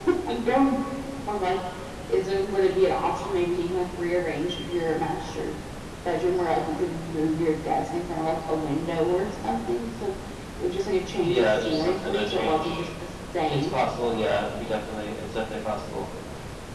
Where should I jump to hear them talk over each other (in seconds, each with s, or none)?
11.2 s